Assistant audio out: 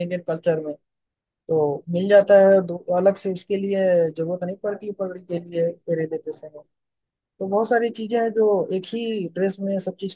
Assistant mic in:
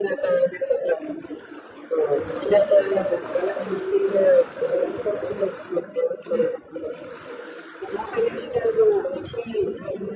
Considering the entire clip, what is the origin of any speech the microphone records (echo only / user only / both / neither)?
echo only